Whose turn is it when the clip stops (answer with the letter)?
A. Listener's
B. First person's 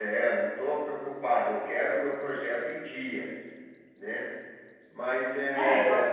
A